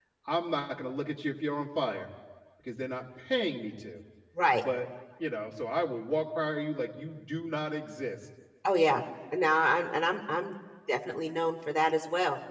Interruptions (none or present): none